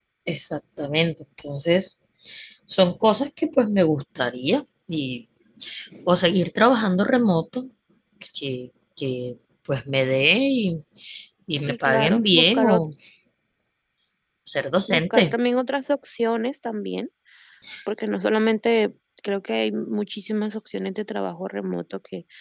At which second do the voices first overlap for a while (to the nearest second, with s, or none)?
12 s